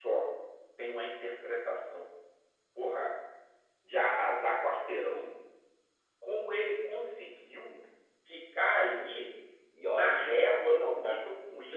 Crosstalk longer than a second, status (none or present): present